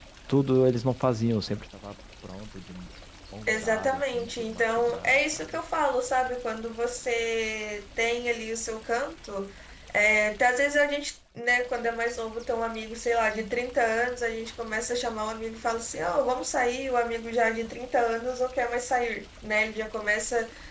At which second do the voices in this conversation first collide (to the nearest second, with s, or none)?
3 s